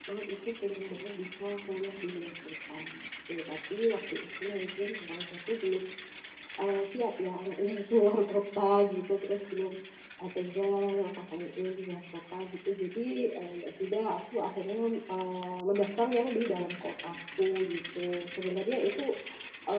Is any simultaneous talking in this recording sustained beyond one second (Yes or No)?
No